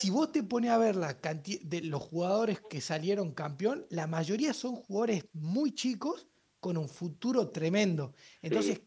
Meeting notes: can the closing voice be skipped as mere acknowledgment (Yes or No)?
Yes